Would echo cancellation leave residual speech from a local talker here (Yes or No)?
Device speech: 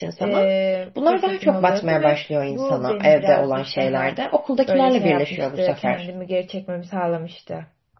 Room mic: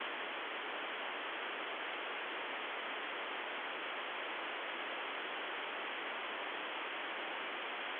No